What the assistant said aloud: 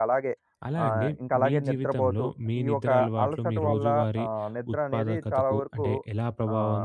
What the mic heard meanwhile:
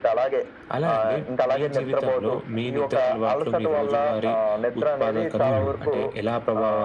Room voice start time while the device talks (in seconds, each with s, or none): 5.4 s